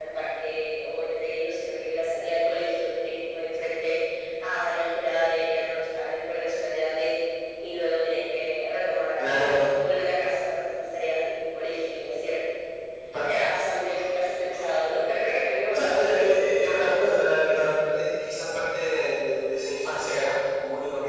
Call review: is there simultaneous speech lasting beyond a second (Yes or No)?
Yes